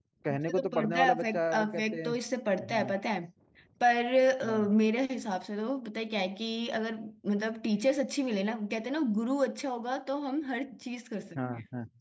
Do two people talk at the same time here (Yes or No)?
Yes